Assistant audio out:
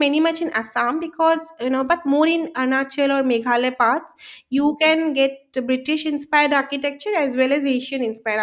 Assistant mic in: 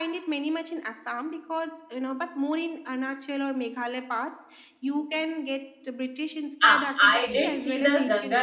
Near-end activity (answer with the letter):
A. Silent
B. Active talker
B